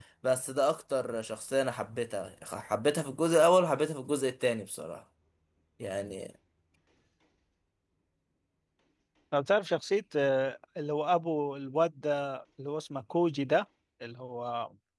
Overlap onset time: none

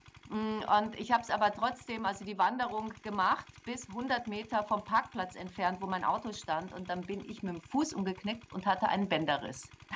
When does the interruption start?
none

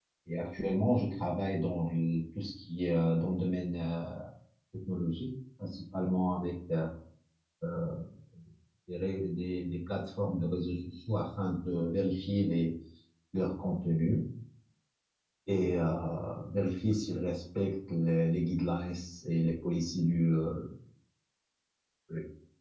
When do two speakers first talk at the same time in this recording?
none

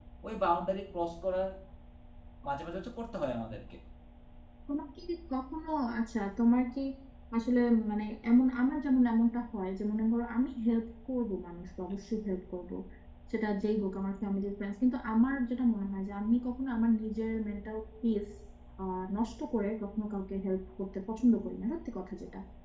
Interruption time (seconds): none

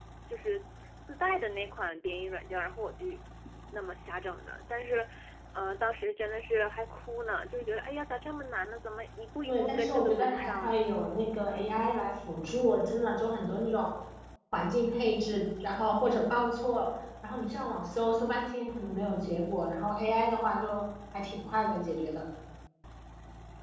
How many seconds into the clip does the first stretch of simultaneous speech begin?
9.5 s

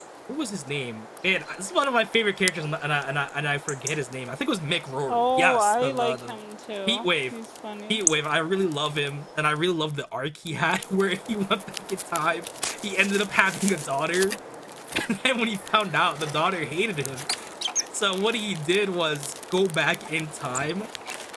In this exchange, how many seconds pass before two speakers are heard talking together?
5.1 s

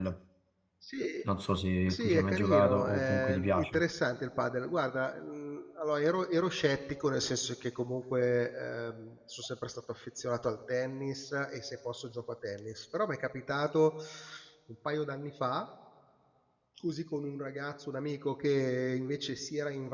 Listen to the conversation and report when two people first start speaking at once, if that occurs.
1.9 s

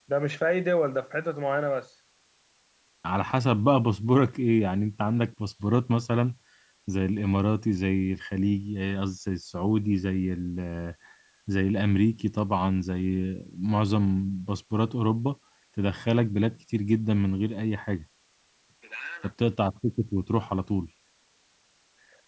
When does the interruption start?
none

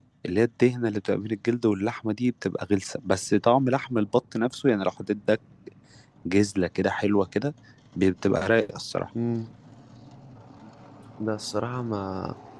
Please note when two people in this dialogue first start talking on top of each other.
none

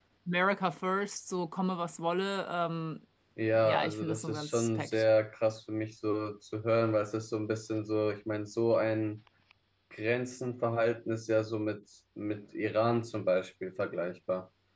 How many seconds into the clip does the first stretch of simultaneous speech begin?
3.6 s

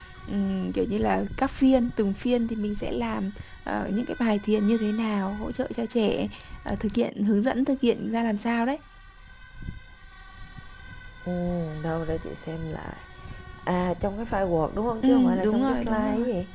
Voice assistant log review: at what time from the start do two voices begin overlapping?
15.0 s

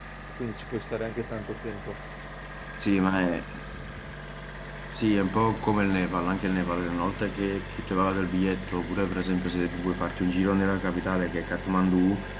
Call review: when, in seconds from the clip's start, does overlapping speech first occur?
none

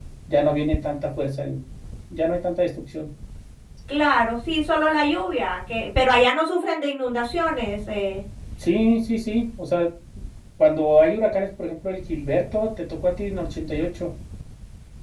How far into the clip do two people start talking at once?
none

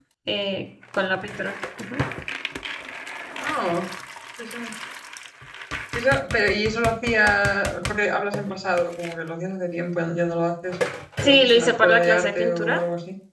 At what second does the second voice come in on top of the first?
11.2 s

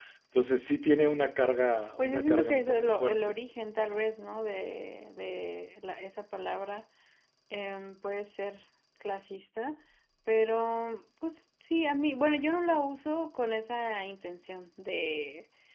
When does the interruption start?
2.0 s

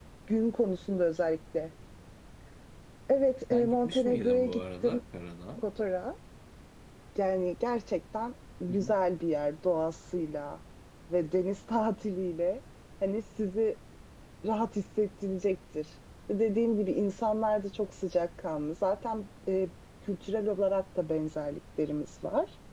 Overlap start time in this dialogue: 3.5 s

